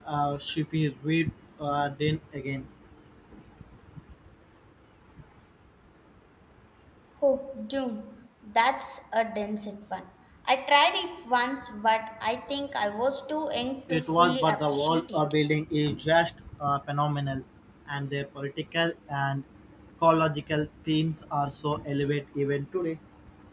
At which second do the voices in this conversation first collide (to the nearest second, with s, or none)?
14 s